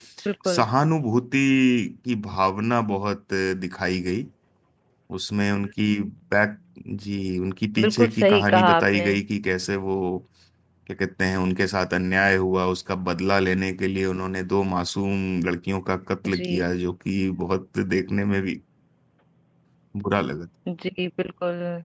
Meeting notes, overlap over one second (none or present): present